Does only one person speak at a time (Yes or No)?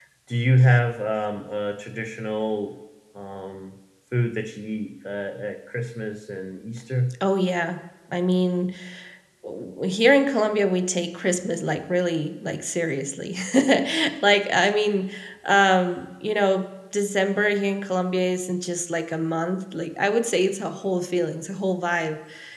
Yes